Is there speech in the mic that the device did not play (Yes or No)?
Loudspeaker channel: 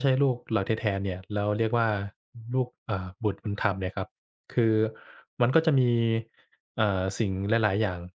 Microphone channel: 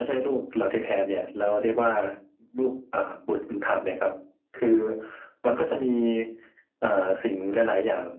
No